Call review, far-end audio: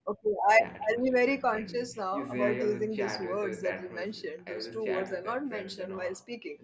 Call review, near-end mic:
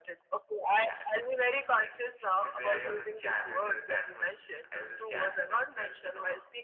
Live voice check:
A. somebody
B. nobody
B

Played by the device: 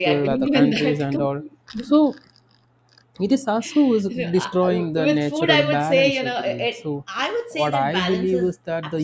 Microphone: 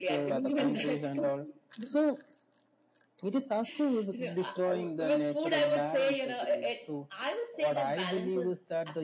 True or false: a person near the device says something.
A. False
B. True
A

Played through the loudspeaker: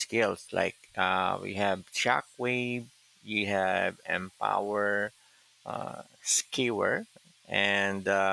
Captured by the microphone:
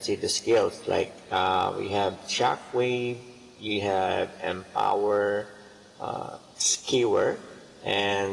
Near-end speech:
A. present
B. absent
B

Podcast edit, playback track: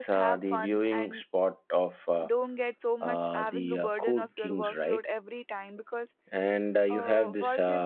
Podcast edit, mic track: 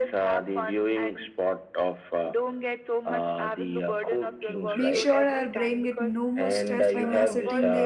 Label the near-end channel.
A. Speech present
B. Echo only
A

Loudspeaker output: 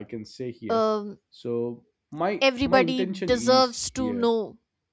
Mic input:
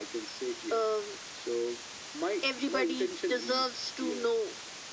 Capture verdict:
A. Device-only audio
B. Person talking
A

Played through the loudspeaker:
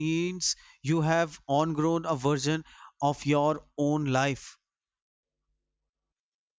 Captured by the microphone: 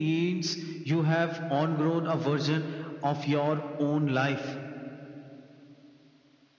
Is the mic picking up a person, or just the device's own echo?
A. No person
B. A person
A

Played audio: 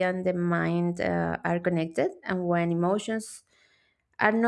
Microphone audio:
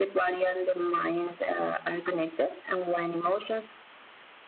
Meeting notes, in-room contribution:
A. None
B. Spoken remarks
A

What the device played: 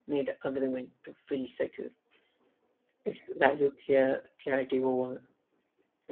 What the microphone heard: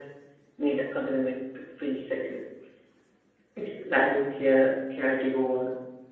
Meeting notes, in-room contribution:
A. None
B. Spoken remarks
A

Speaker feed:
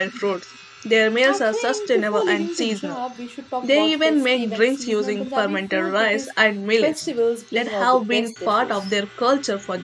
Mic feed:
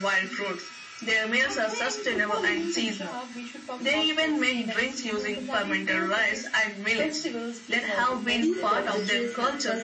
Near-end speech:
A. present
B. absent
A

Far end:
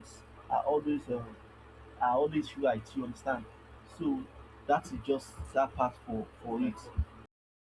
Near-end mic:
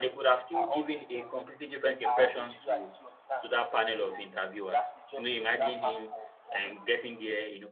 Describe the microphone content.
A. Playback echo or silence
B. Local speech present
B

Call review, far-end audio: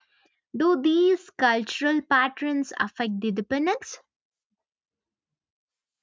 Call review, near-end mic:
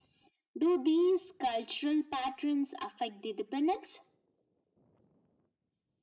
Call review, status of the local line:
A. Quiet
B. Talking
A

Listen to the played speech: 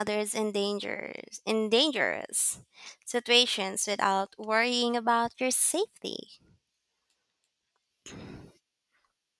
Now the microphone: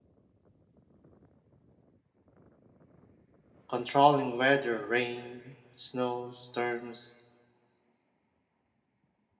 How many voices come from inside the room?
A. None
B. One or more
B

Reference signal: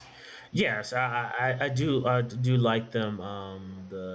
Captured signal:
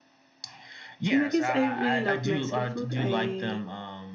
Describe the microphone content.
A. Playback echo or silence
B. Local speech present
B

